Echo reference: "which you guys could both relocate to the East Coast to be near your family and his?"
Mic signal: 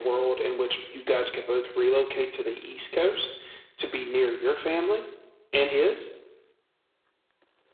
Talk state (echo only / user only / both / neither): echo only